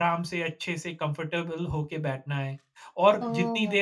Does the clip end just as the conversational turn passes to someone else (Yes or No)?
Yes